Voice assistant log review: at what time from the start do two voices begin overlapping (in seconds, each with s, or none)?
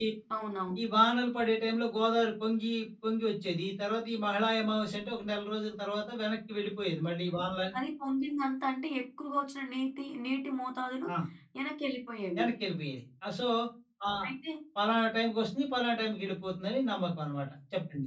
none